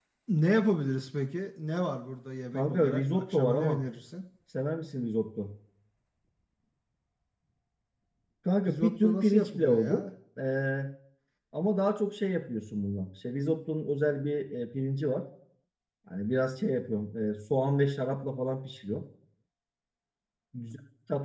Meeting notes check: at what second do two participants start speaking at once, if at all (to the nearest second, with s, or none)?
3 s